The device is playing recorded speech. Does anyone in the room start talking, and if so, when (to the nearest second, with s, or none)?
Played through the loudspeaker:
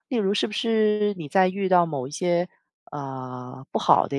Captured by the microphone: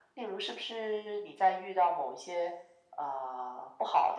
none